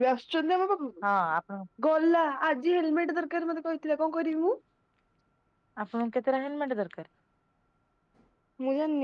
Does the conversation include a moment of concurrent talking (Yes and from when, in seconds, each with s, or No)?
No